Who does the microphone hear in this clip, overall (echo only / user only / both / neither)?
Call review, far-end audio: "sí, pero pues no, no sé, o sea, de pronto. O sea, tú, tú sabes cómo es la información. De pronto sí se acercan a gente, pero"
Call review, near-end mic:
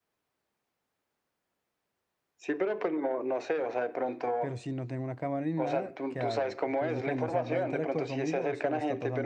both